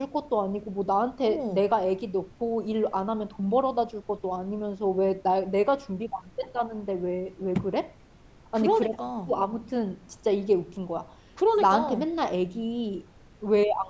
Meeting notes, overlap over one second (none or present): none